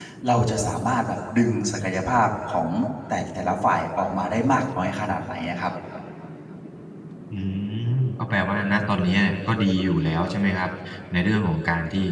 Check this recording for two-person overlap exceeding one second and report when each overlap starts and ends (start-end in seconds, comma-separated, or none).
none